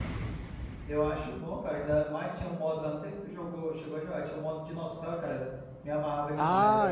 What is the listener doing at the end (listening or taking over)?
taking over